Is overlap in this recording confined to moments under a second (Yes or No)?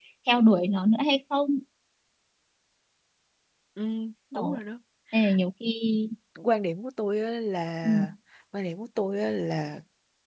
Yes